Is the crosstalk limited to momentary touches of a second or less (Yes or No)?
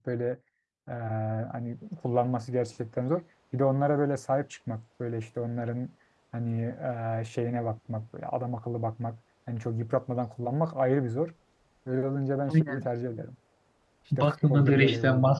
No